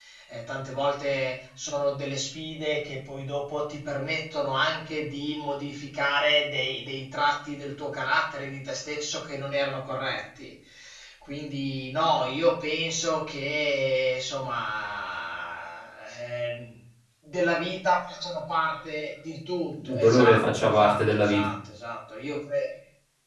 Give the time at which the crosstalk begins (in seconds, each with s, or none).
19.9 s